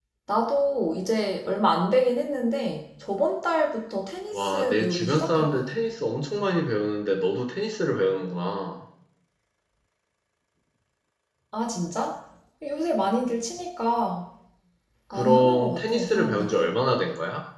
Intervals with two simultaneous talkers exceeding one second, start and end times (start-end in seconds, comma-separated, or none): 4.3-5.6, 15.1-16.7